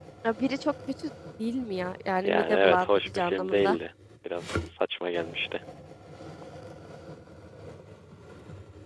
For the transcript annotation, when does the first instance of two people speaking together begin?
2.2 s

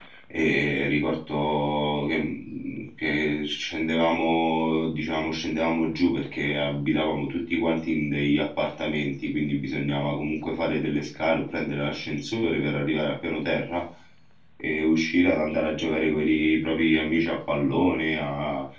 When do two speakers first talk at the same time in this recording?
none

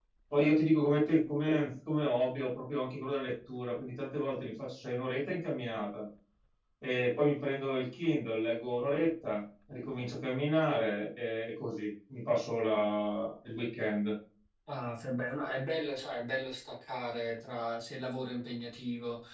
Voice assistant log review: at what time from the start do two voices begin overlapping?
none

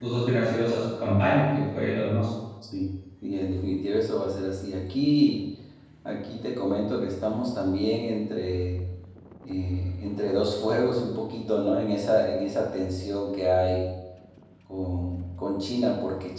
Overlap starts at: none

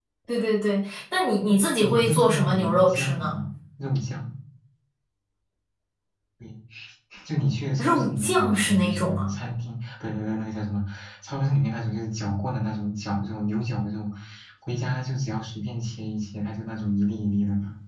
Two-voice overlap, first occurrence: 1.8 s

